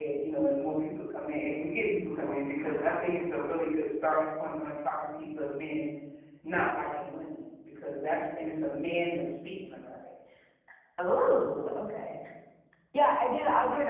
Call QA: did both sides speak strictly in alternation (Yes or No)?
Yes